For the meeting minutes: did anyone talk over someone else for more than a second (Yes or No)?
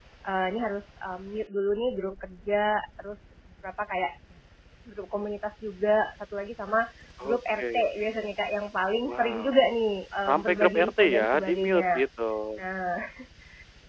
Yes